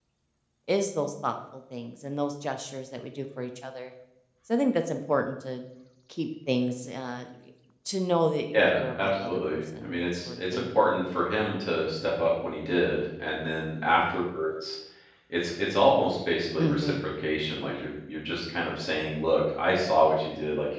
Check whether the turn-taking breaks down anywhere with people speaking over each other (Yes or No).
Yes